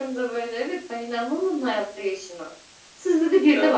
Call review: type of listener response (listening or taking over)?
listening